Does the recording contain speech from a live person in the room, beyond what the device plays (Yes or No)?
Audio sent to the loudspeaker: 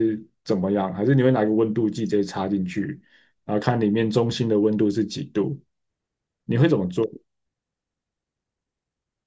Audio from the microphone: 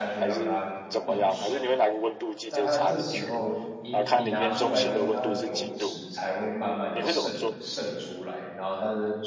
Yes